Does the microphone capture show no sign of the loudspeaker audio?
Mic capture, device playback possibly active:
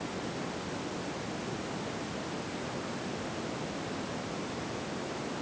Yes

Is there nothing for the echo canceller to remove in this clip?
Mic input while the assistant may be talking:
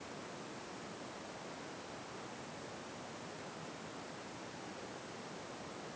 Yes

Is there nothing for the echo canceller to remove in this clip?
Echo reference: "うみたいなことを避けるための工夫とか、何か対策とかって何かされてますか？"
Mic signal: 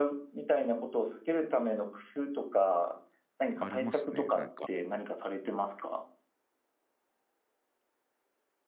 No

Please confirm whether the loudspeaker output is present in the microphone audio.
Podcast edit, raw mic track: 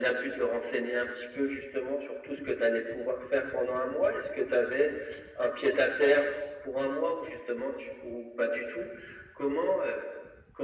Yes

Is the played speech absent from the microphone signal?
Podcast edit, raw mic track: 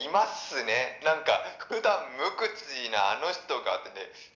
No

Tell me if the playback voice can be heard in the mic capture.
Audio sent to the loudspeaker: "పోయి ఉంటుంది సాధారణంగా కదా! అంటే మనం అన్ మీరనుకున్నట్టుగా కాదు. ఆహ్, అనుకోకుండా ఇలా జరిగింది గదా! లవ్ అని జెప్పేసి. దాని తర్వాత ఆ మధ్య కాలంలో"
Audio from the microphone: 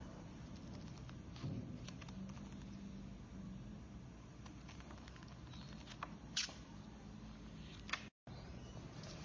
No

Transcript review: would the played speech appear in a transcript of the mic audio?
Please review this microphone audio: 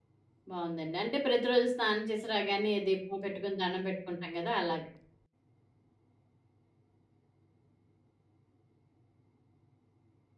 No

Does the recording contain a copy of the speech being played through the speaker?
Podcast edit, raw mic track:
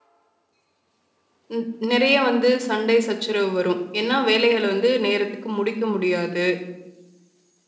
No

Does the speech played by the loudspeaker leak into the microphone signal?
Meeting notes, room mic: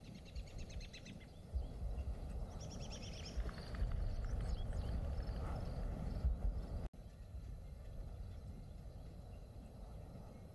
No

